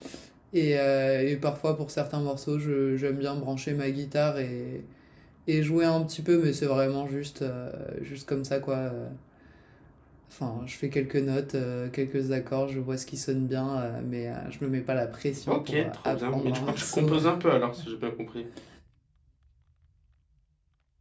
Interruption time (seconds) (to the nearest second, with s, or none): 15 s